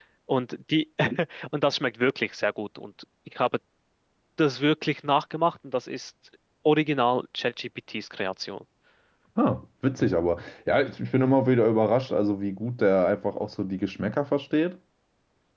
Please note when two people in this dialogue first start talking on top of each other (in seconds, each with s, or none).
none